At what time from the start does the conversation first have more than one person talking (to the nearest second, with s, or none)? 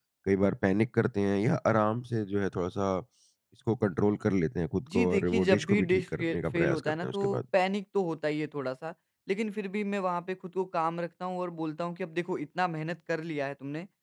5 s